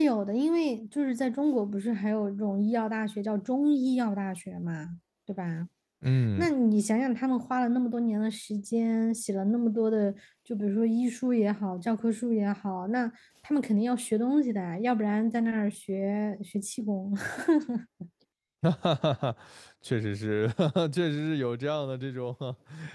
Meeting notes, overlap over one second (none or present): none